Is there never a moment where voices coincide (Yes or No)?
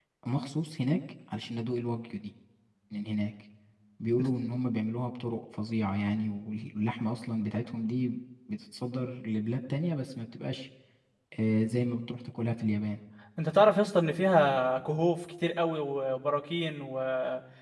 Yes